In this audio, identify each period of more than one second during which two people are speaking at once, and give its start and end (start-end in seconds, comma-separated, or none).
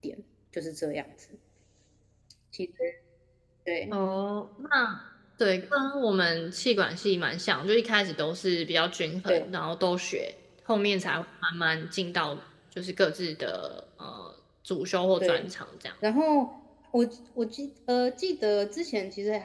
none